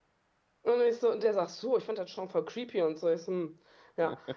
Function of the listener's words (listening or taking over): listening